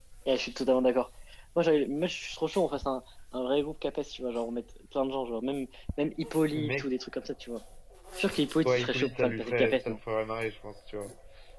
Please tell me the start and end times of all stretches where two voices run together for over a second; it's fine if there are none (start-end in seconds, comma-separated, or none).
8.7-10.0